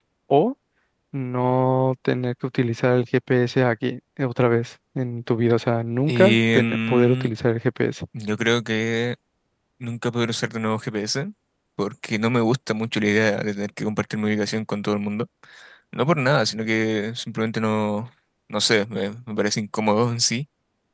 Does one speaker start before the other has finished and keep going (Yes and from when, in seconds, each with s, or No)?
Yes, from 6.1 s